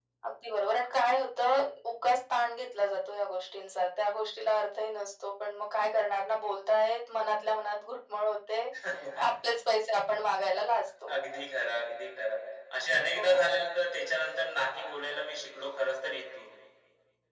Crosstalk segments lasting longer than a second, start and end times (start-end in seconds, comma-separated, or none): none